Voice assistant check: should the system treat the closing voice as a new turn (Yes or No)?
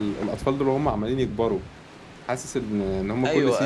No